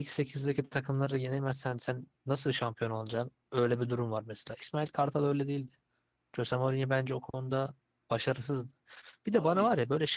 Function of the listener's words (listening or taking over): listening